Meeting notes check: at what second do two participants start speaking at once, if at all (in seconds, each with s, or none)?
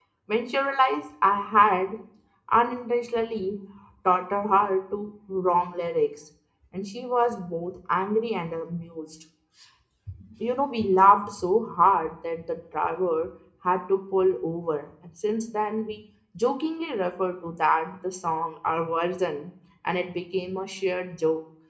none